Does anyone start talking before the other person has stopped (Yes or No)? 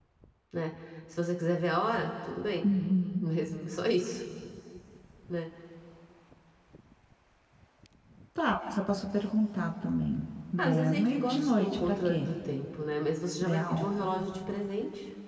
Yes